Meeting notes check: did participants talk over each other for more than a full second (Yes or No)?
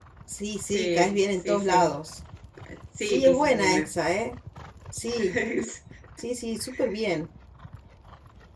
Yes